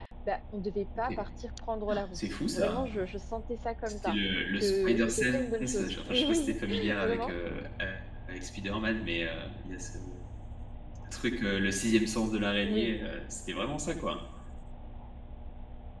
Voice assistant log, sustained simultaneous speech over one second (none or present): present